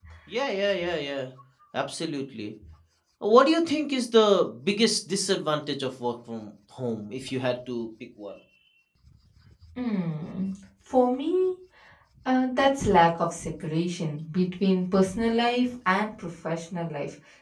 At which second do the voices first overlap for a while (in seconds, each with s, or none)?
none